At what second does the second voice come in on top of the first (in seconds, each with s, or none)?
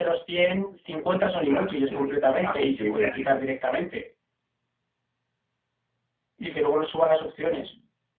1.5 s